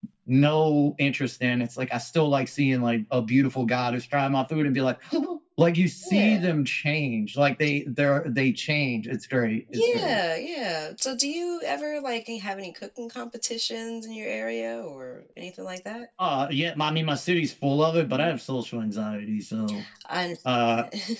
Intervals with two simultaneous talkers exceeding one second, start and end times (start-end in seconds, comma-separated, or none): none